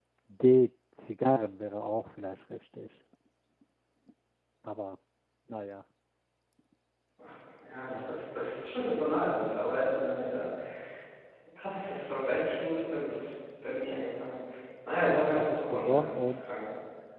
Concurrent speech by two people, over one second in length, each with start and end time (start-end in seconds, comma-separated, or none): 15.1-16.5